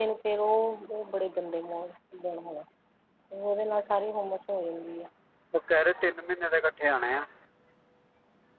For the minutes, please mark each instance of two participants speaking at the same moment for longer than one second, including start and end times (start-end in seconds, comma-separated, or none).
none